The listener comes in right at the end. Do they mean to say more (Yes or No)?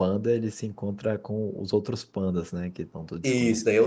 Yes